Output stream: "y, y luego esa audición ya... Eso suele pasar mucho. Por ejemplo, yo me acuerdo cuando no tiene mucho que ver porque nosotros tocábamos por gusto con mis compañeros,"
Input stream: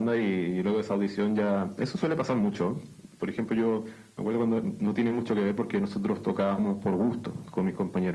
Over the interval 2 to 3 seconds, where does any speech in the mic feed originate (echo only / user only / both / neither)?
echo only